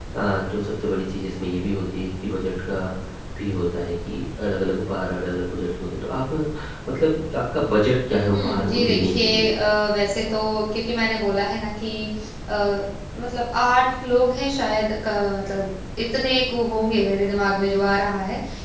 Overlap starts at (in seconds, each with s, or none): 8.3 s